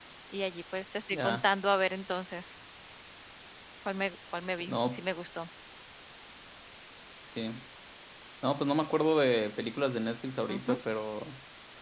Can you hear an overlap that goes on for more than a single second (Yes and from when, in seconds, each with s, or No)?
No